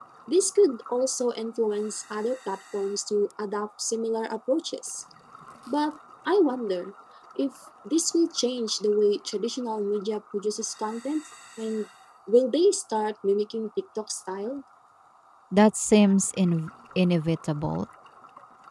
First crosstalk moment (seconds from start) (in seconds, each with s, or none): none